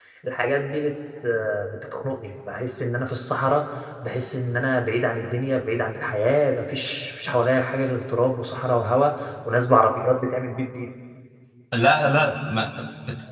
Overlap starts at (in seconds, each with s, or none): none